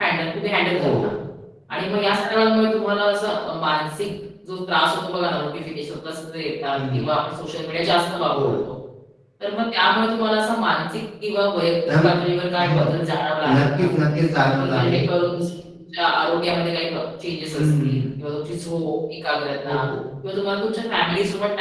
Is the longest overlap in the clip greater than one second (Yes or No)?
No